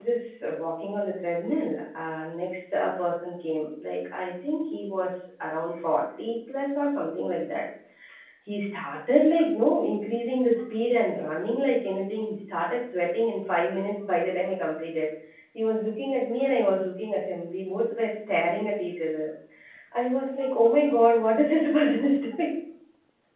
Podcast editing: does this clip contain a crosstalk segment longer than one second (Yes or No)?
No